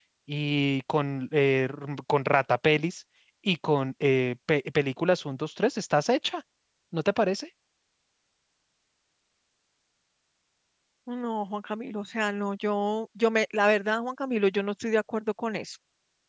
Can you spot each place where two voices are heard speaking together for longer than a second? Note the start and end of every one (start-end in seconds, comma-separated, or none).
none